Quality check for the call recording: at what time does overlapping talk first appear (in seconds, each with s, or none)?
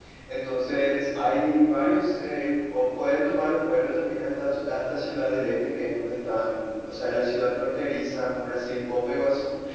none